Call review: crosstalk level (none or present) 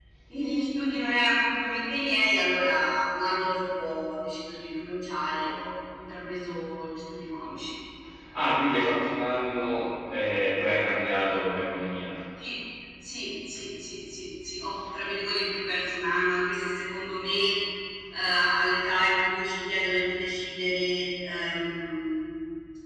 none